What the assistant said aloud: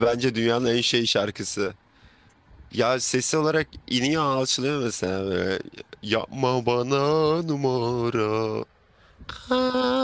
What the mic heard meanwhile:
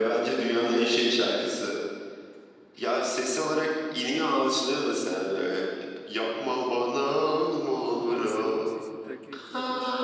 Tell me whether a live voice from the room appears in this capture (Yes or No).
Yes